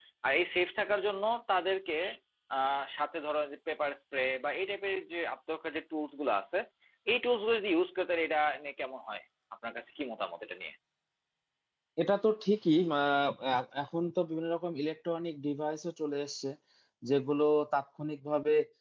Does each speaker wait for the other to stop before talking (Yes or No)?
Yes